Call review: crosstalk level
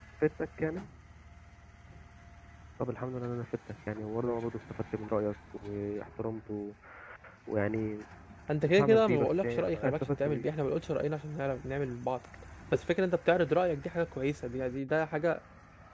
present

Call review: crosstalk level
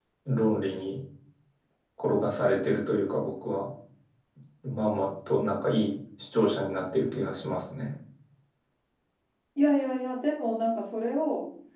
none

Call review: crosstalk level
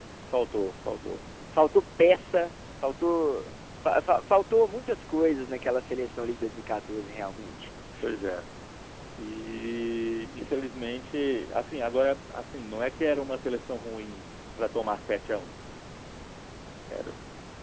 none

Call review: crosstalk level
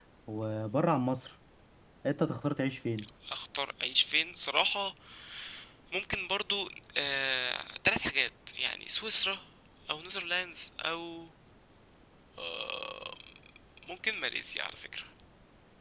none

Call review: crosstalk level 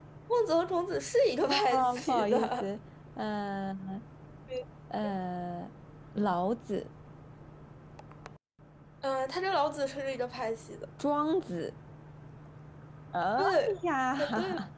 present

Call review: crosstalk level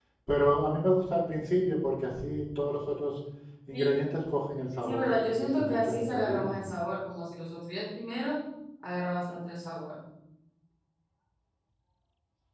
present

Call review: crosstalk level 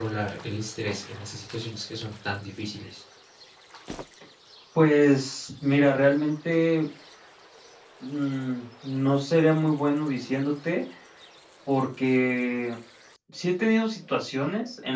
none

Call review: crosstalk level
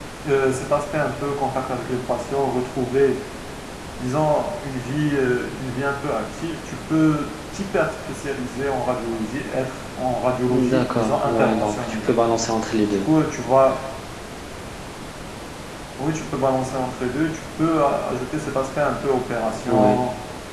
present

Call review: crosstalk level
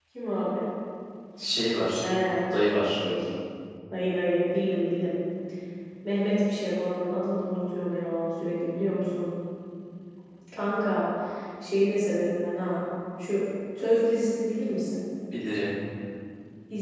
none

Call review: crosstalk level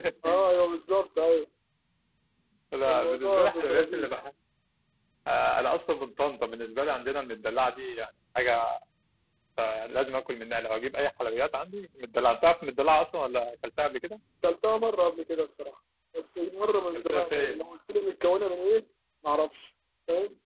present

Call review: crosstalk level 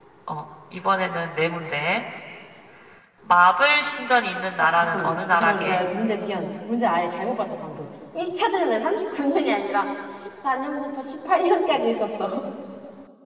present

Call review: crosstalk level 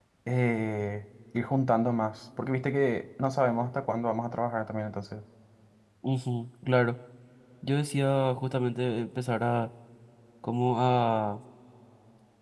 none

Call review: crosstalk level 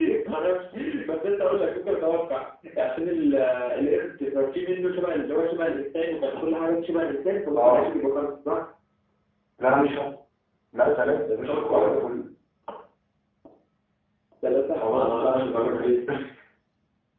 present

